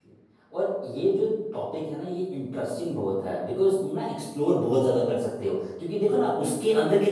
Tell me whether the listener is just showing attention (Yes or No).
Yes